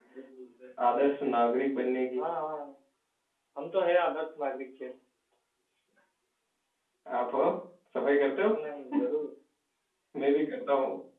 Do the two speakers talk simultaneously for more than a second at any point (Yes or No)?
No